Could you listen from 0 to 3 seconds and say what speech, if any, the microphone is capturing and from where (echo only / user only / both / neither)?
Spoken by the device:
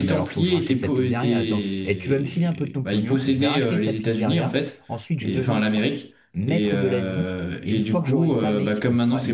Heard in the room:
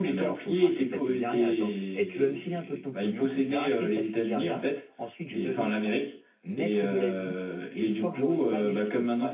echo only